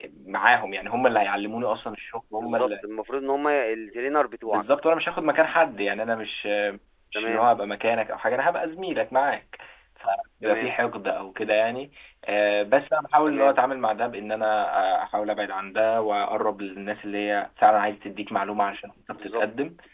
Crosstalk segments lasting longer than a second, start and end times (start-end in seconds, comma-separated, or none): none